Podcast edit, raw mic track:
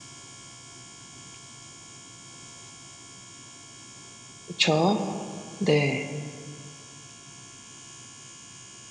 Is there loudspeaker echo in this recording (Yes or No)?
No